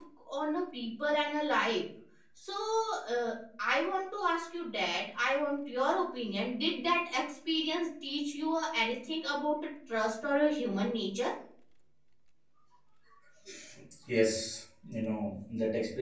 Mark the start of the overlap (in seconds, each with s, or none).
none